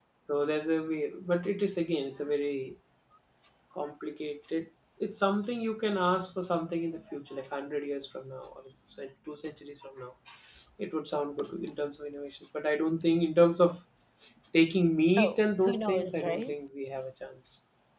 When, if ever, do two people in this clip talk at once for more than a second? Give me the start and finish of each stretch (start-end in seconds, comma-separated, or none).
15.2-16.6